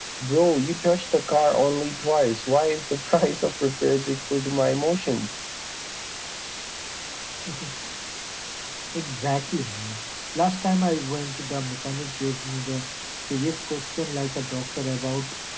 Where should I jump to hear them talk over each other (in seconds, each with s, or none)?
none